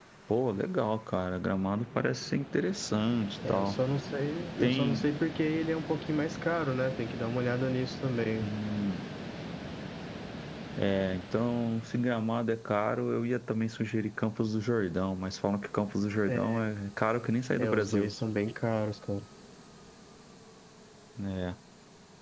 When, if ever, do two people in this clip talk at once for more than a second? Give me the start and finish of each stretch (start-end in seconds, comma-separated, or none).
none